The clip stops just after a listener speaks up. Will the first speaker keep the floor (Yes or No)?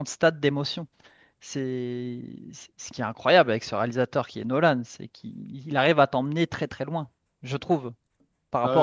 No